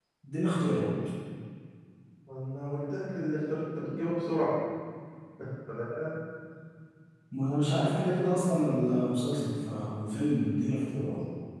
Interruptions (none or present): none